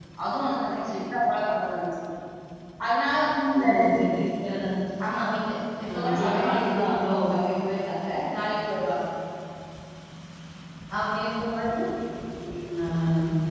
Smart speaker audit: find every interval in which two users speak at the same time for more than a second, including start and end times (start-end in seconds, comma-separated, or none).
5.9-7.1